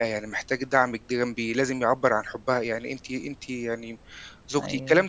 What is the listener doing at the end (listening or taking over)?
listening